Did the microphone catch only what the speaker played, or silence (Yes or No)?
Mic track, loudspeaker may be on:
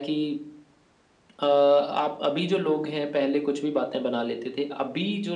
Yes